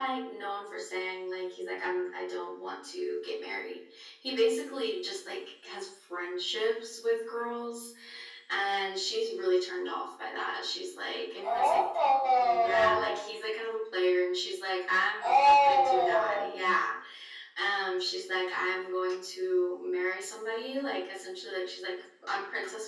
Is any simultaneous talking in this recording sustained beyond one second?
Yes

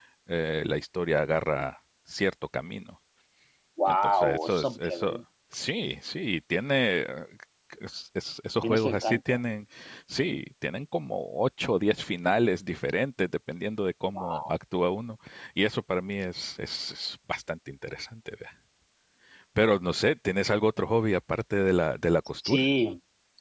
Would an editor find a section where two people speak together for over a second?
Yes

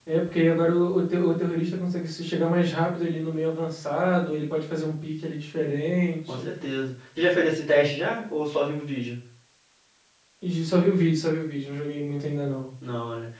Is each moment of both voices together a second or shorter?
Yes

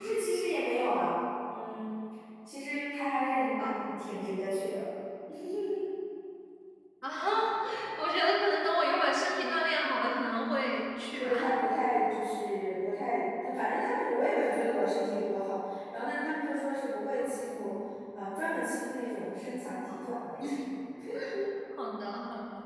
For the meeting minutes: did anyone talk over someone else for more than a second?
No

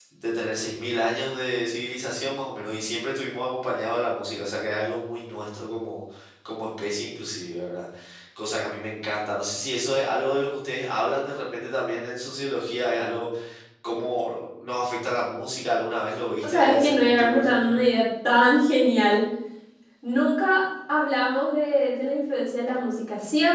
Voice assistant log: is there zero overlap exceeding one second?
No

